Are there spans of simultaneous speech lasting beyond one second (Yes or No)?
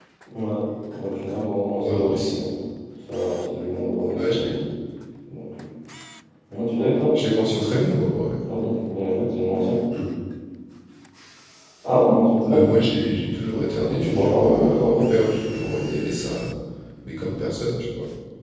Yes